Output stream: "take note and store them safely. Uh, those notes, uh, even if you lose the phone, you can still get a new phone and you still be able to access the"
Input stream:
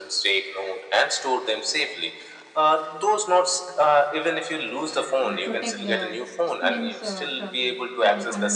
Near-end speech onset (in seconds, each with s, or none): 5.2 s